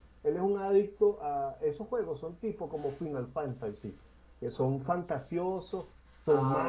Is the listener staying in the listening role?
Yes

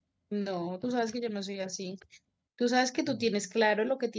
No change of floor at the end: Yes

